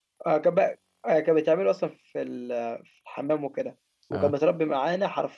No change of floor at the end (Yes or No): Yes